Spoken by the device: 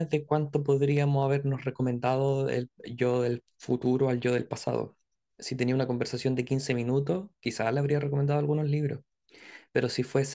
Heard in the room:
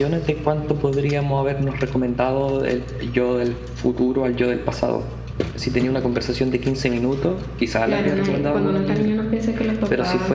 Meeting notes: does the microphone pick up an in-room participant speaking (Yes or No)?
Yes